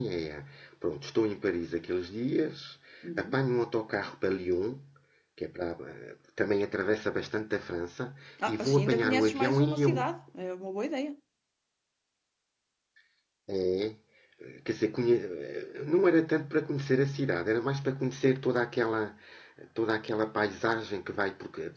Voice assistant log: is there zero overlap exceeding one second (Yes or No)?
No